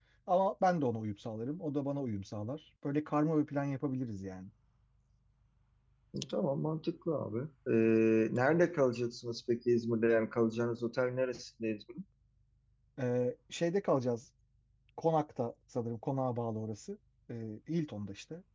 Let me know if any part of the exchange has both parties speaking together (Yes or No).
No